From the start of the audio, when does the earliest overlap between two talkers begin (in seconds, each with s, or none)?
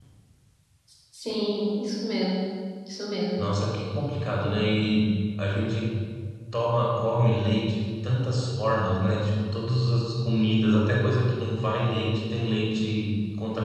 none